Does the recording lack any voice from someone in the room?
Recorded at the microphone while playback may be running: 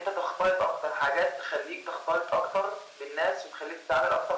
Yes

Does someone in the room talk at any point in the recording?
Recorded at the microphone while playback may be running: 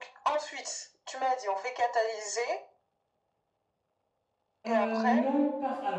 Yes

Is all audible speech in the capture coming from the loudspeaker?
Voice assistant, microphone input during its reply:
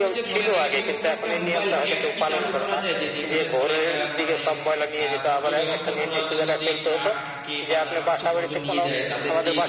No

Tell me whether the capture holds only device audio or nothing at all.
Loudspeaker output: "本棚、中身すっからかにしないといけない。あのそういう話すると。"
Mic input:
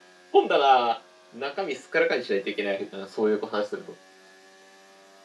Yes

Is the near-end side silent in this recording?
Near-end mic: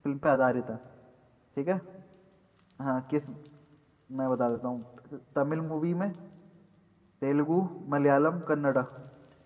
No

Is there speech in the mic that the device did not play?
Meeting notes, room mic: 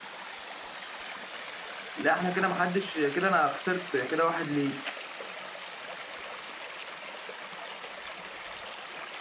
Yes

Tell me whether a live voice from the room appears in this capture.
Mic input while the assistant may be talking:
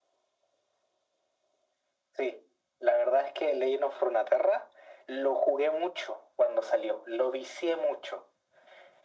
No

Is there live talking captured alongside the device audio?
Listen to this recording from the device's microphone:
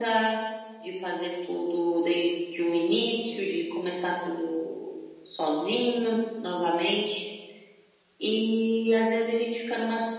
No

